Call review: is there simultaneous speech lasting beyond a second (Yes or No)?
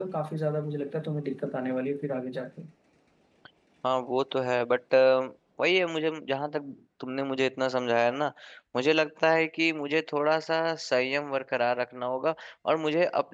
No